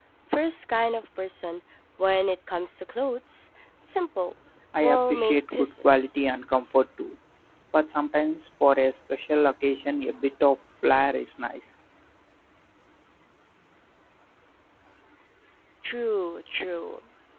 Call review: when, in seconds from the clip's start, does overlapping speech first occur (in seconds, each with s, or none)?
4.7 s